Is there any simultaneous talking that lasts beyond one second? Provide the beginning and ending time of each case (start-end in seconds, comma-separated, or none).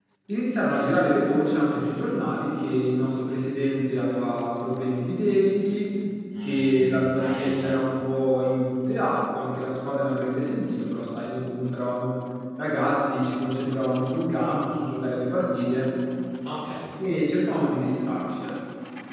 6.4-7.7